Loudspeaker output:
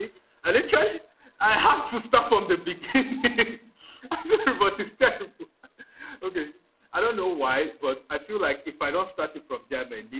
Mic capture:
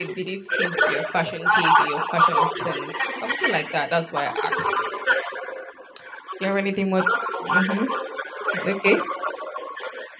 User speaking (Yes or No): Yes